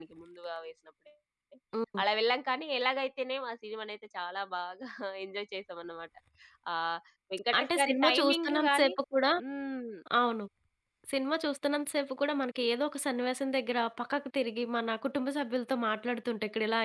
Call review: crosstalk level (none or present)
present